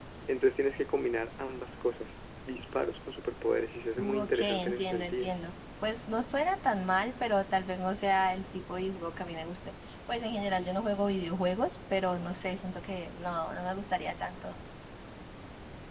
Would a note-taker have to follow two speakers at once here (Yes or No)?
Yes